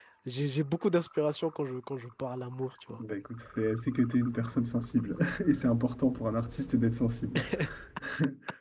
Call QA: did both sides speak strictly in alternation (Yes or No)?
Yes